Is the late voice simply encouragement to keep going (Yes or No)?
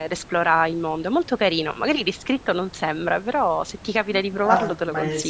No